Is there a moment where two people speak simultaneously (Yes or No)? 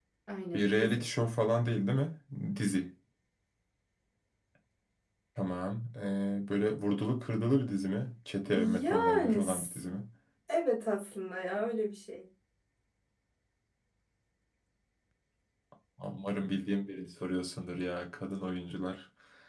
Yes